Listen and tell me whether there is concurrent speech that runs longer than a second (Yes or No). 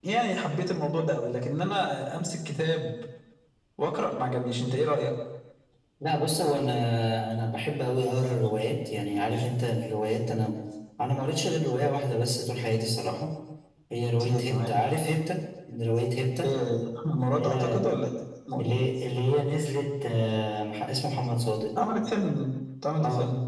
No